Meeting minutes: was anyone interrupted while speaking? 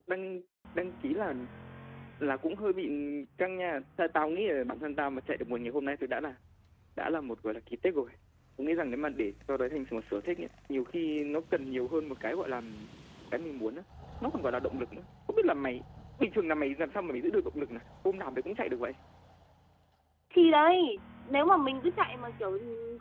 No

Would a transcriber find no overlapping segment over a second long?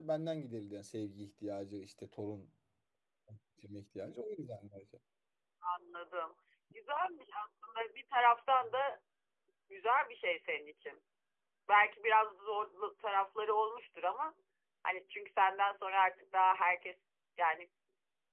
Yes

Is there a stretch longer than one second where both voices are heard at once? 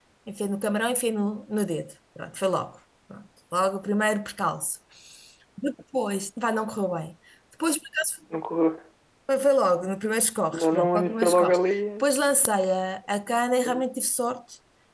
Yes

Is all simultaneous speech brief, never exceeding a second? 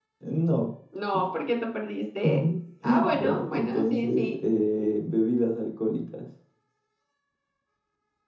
No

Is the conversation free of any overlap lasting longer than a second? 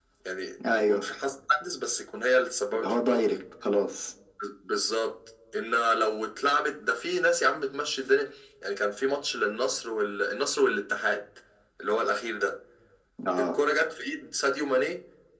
Yes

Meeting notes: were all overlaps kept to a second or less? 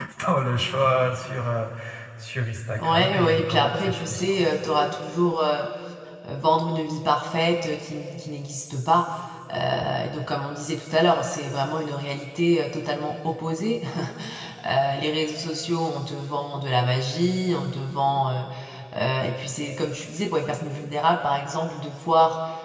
No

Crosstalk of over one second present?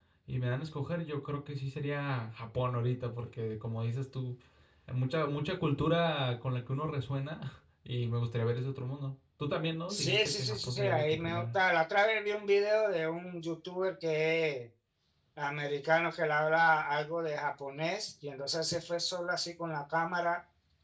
Yes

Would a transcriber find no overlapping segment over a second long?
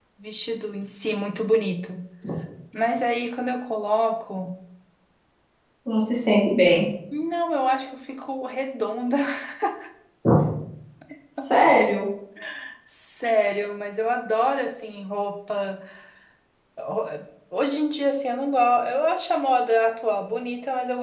Yes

